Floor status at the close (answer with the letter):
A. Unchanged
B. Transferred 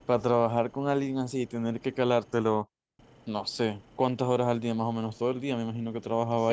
B